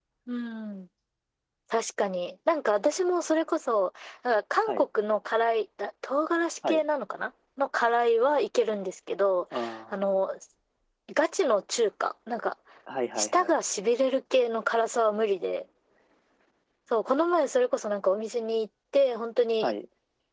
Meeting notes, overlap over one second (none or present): none